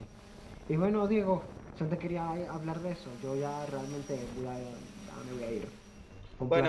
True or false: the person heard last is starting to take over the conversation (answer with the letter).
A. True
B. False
A